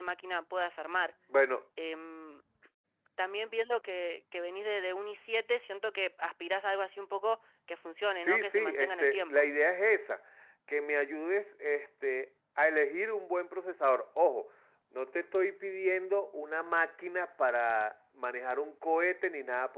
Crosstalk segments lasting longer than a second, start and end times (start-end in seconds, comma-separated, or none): 8.2-9.4